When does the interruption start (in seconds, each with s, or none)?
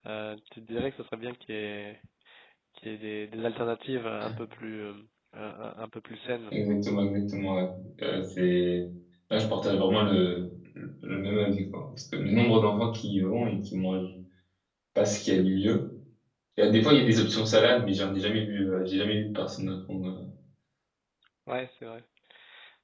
none